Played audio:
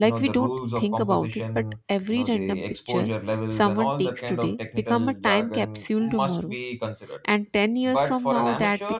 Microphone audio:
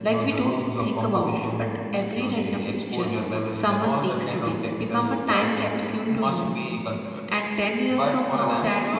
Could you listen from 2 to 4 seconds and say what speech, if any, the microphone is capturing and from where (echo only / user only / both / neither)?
echo only